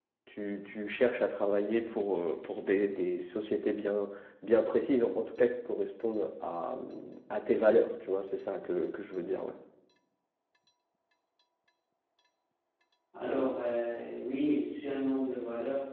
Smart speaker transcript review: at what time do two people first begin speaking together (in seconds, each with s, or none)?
none